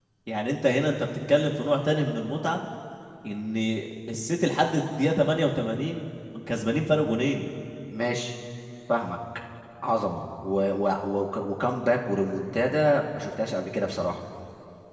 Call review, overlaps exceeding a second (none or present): none